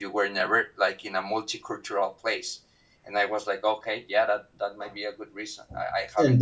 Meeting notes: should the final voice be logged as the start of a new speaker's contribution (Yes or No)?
Yes